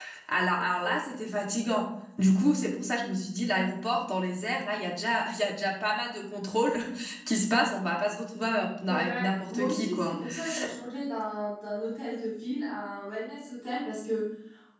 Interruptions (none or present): present